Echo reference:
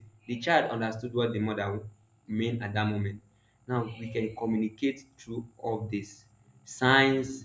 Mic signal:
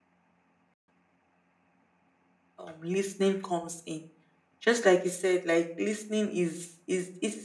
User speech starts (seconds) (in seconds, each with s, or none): 2.6 s